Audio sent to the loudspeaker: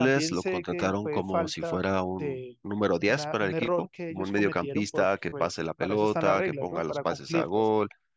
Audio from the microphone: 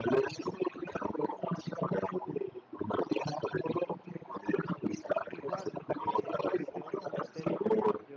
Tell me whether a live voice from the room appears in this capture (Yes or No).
Yes